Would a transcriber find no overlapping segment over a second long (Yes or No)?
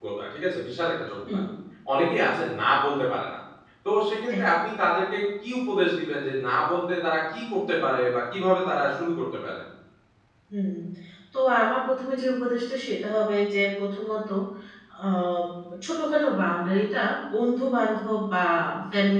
Yes